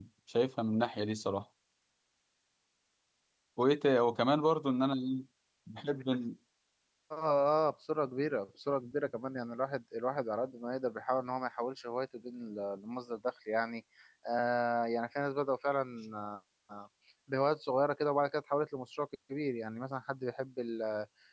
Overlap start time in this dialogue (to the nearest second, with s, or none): none